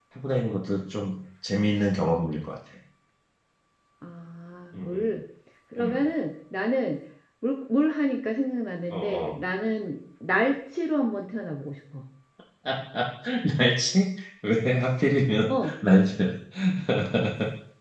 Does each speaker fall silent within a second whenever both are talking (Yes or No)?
Yes